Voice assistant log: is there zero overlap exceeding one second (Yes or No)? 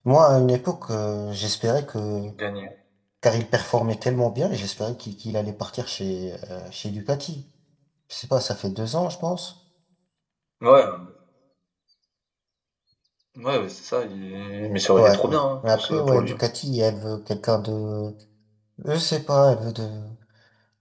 No